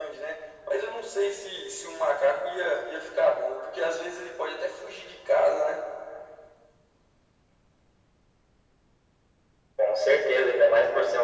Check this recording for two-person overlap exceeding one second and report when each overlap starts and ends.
none

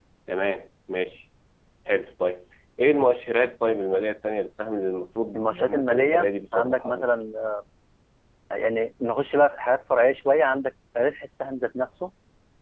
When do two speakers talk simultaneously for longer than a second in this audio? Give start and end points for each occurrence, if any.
5.4-7.0

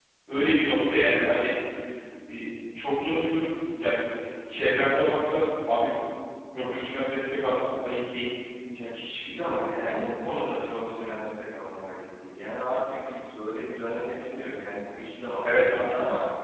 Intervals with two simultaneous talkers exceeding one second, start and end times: none

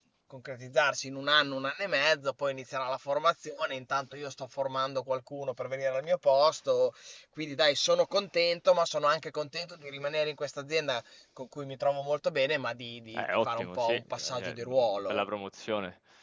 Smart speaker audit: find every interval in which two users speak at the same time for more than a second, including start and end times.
13.1-15.2

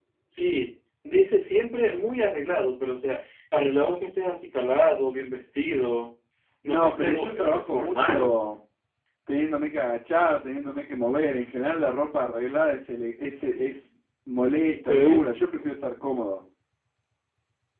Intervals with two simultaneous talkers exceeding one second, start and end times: 6.6-8.3

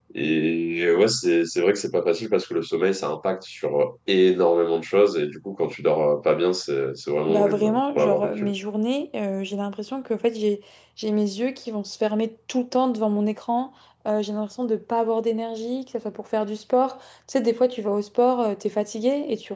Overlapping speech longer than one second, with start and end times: 7.3-8.5

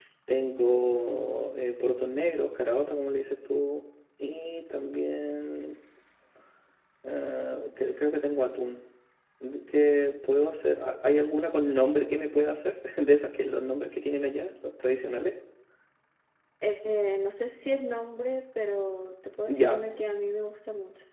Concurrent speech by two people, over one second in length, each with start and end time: none

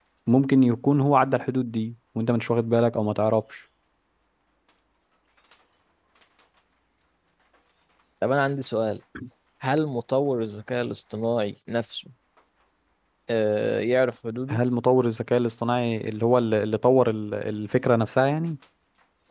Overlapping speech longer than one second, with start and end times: none

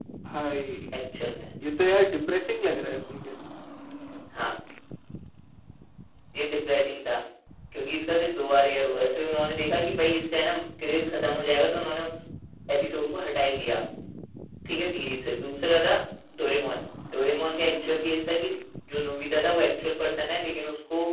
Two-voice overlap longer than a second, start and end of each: none

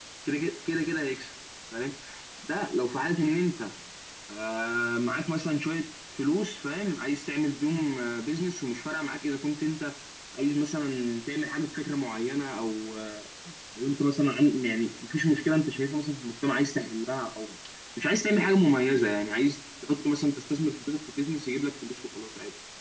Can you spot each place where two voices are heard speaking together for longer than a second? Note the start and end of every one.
none

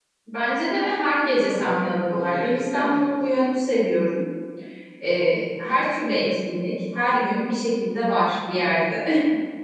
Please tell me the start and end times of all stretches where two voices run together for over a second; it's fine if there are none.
1.4-3.0

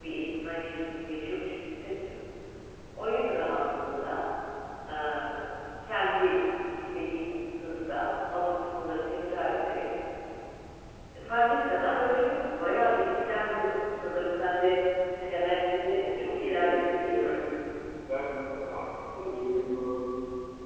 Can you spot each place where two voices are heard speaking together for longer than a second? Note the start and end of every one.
16.0-17.4

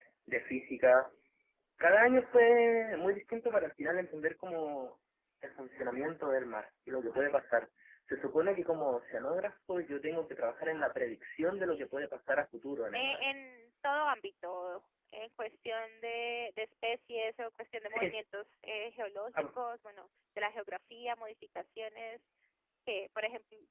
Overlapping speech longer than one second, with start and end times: none

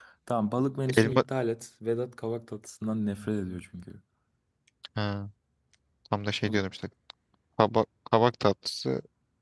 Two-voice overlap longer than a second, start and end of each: none

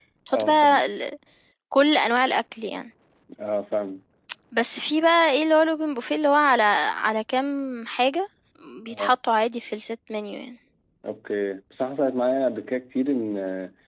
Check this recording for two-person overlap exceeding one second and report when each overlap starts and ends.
none

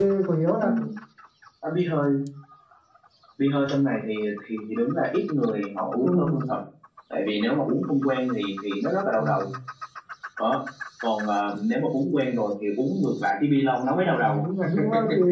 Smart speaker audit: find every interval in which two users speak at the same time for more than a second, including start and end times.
none

